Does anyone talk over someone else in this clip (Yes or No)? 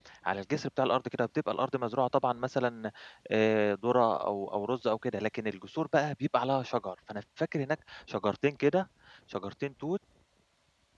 No